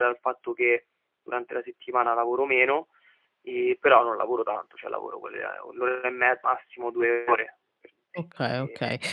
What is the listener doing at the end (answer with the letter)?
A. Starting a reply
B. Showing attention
A